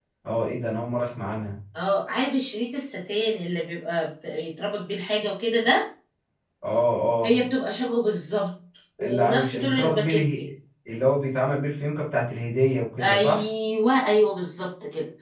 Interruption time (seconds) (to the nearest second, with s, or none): 9 s